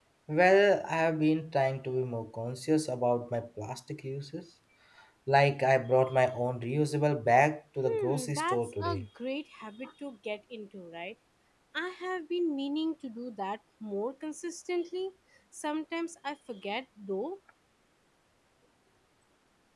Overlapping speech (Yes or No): Yes